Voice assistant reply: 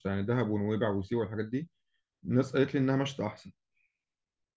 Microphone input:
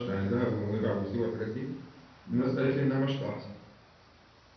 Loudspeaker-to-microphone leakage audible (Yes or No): Yes